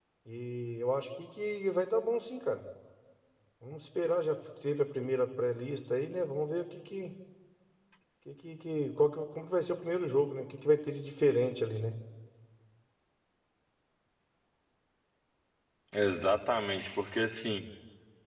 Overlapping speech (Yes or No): No